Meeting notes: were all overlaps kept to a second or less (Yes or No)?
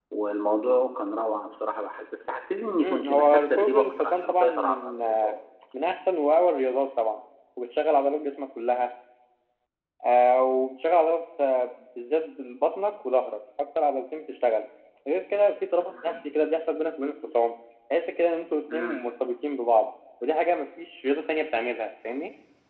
No